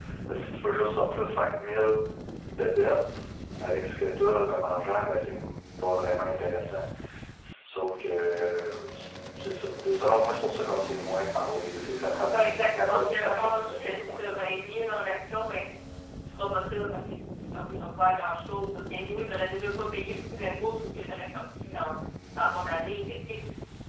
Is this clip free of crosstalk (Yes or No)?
No